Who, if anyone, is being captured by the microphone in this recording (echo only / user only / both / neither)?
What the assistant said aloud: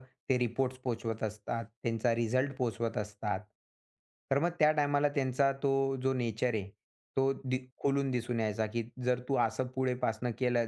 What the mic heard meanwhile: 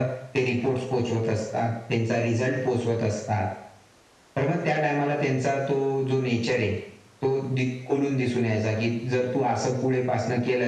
echo only